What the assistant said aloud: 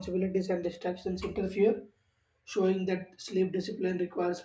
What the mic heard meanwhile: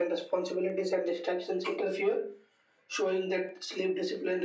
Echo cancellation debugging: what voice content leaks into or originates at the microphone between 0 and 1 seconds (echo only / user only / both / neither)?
echo only